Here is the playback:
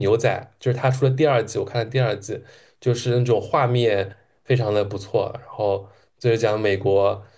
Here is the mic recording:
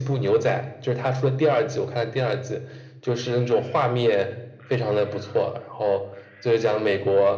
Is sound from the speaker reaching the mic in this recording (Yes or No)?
Yes